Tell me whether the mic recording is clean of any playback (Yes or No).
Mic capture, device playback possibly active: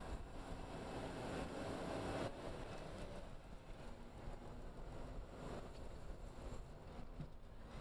Yes